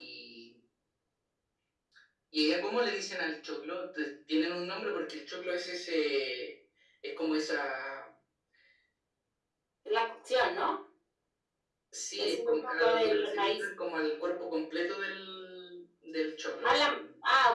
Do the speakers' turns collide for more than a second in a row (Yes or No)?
Yes